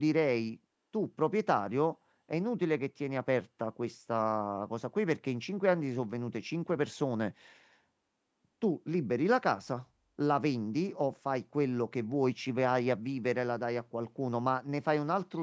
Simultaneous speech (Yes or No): No